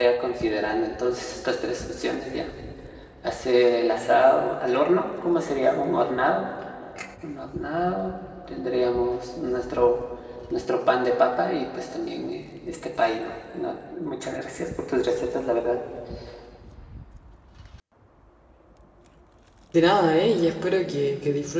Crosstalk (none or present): none